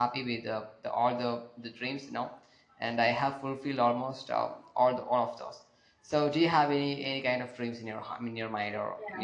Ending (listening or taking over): taking over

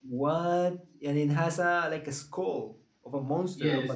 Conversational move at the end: taking over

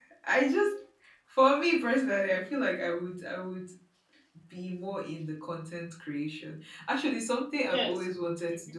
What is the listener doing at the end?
taking over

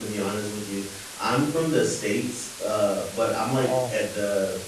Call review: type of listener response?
listening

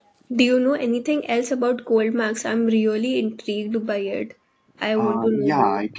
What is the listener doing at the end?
taking over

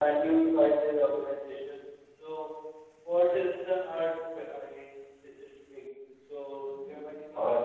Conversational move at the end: taking over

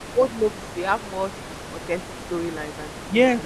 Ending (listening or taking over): taking over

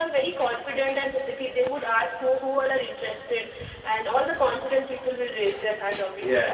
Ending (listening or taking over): listening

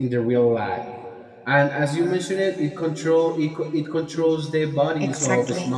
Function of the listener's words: taking over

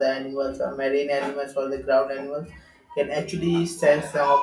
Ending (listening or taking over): listening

